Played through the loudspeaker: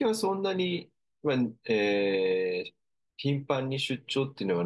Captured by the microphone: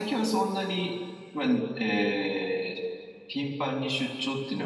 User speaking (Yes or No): No